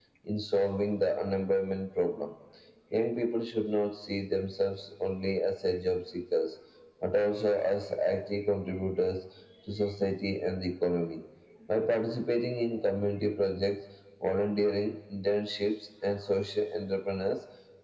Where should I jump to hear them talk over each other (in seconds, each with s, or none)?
none